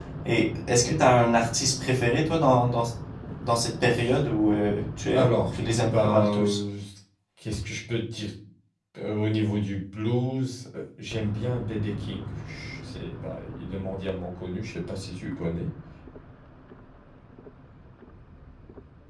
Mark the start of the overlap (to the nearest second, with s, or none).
5 s